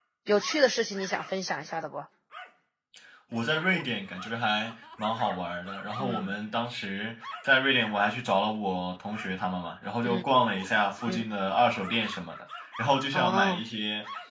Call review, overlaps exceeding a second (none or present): none